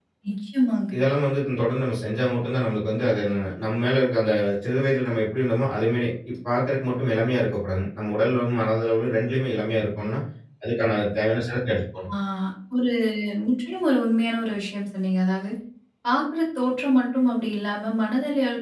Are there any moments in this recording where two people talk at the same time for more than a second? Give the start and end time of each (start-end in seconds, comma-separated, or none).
none